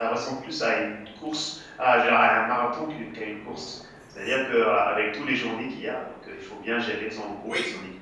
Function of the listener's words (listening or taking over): taking over